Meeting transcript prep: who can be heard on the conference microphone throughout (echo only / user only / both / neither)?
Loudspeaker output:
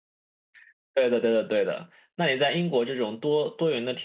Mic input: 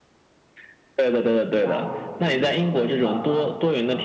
both